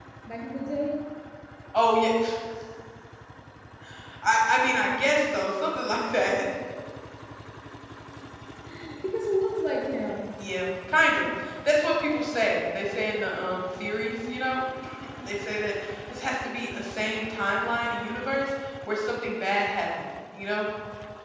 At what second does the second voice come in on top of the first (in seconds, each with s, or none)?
none